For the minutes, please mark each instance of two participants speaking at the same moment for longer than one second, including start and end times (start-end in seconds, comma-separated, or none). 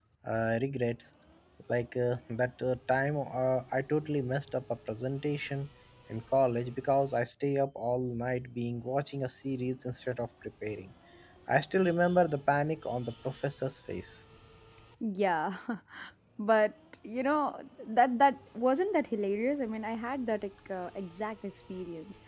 none